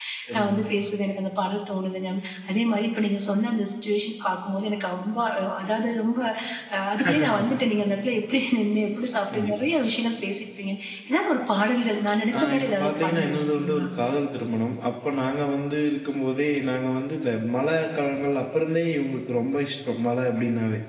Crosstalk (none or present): present